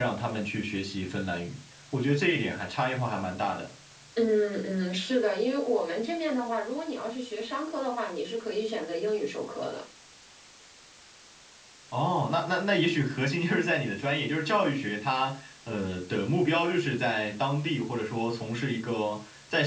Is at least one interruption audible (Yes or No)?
No